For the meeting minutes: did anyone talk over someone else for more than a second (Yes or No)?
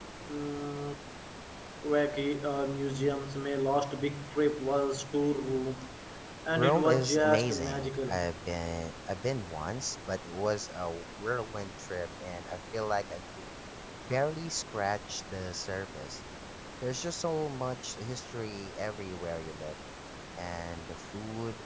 Yes